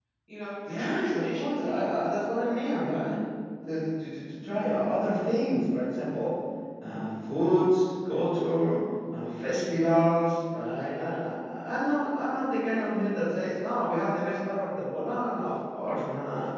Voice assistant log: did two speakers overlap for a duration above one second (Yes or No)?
Yes